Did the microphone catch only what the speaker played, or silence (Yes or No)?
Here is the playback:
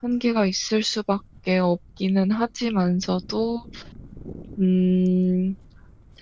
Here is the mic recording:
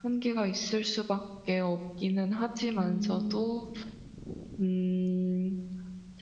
No